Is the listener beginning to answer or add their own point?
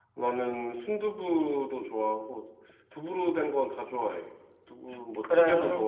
No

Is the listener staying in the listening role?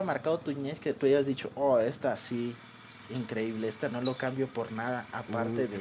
No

